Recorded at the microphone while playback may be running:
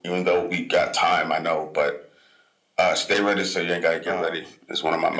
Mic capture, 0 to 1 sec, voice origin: echo only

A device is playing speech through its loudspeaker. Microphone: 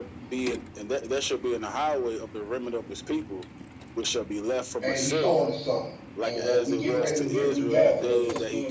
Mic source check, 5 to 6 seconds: both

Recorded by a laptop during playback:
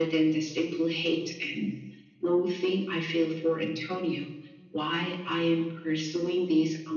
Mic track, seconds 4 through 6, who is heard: echo only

